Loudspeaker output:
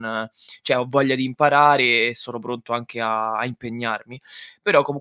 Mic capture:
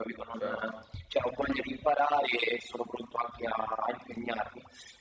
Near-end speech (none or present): present